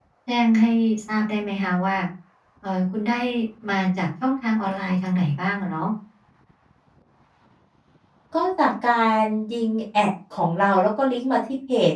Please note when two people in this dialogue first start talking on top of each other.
none

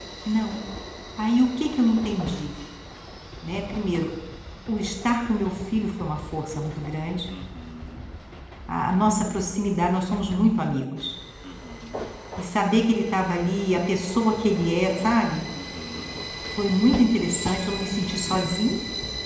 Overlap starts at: none

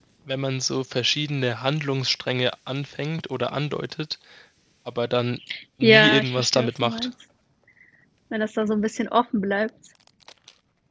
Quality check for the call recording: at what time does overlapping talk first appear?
5.8 s

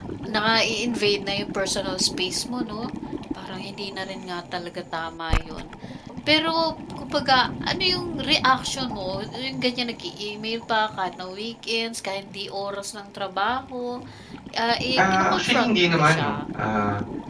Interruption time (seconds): 14.9 s

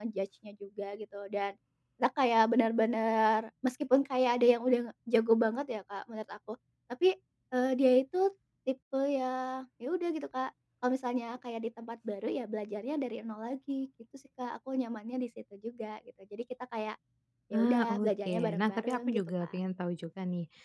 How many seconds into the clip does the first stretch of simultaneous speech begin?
17.5 s

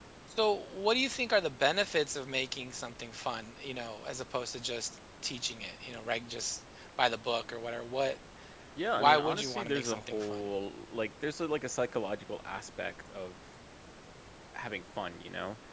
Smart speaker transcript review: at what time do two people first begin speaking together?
9.0 s

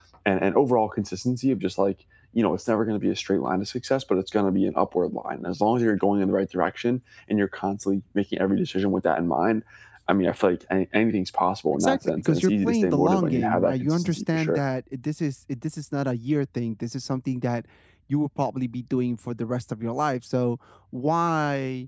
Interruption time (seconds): 11.7 s

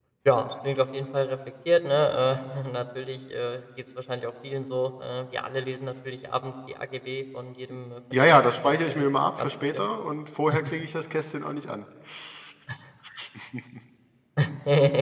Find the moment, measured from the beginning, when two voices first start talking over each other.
8.1 s

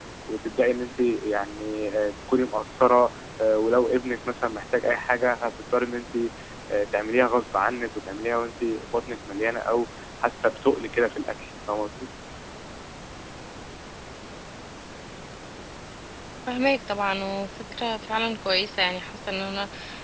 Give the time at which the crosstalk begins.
none

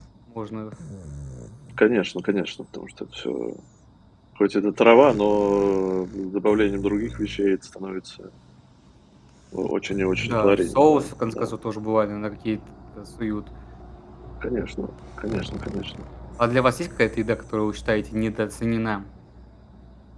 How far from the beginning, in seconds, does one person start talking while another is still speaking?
10.2 s

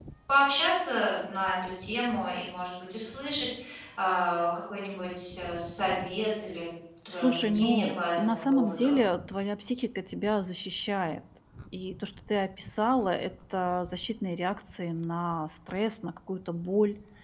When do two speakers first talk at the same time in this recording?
7.1 s

